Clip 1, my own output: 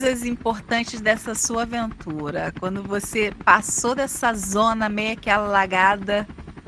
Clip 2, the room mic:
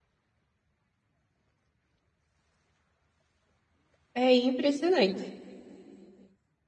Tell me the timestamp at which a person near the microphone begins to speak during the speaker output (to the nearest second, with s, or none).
4 s